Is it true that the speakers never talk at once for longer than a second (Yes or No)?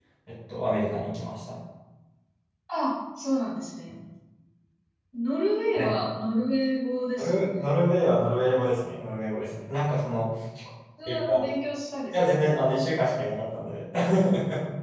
Yes